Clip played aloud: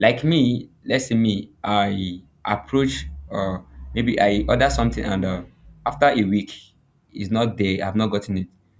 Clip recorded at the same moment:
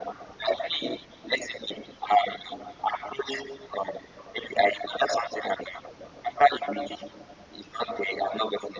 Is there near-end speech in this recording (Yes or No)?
No